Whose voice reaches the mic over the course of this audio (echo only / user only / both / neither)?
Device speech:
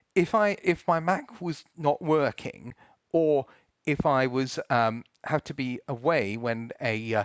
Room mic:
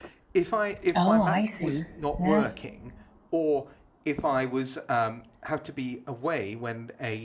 both